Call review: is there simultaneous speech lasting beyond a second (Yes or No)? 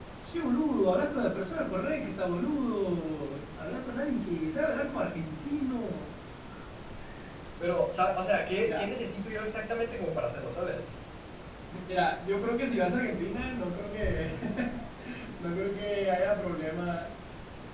No